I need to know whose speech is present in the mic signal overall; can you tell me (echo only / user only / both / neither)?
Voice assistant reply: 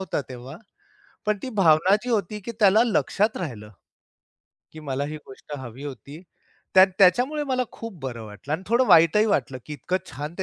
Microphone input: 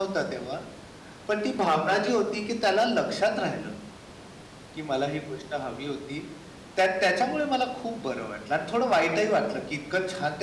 echo only